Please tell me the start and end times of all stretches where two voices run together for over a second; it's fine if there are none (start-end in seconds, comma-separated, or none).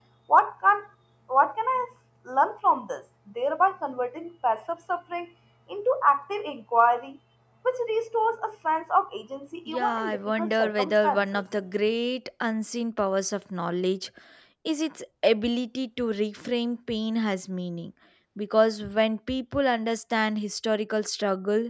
9.7-11.4